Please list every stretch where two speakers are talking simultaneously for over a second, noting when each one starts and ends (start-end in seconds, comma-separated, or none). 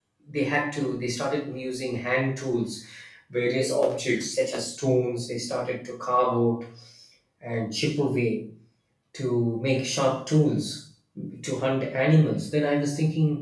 none